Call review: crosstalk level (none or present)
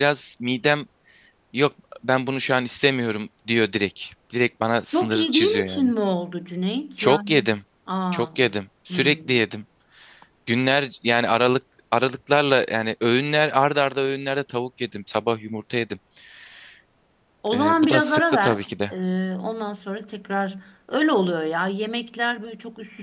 present